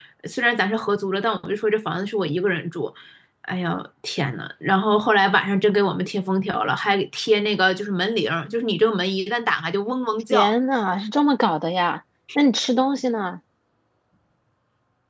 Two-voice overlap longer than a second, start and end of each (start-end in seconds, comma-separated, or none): none